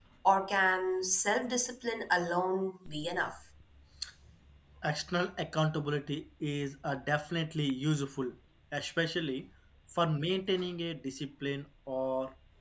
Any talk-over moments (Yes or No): No